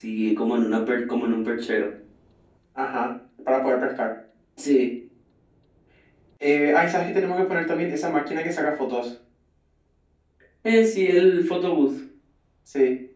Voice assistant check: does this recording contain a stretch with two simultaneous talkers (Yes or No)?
No